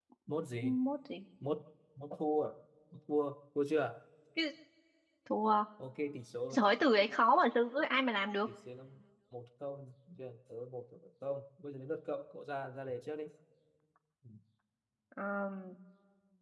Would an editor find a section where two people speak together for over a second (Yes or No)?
No